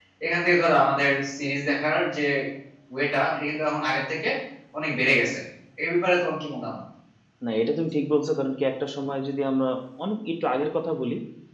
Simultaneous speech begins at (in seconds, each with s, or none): none